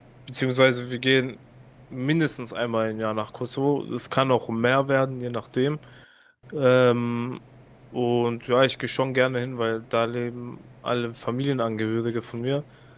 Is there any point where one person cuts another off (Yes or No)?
No